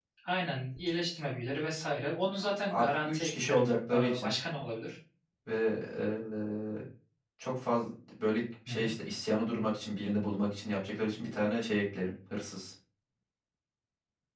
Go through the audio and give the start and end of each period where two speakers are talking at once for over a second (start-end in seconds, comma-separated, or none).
2.7-4.3